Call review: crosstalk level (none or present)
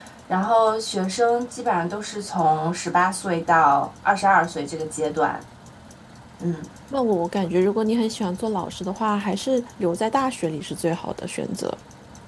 none